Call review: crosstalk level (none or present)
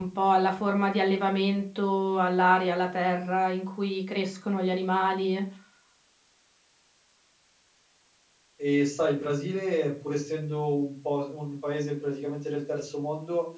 none